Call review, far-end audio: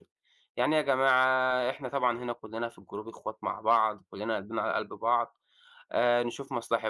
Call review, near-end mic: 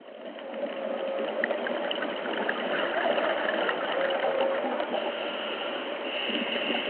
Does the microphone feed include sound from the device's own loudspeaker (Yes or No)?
No